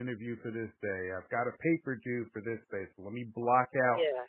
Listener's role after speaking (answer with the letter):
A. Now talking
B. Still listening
B